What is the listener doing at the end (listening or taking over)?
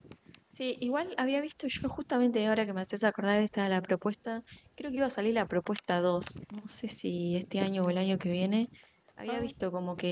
listening